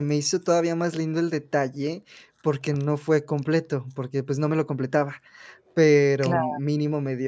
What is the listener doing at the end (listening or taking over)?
listening